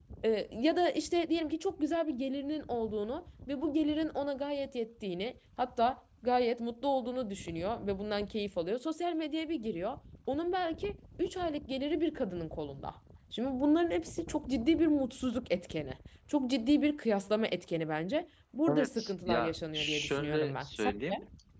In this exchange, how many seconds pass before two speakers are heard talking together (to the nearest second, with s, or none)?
19 s